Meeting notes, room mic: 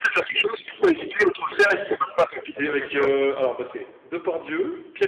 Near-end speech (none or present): present